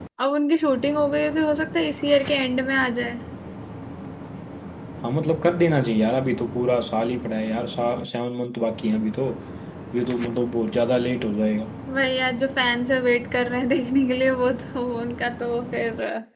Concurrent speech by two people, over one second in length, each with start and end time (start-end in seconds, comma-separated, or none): none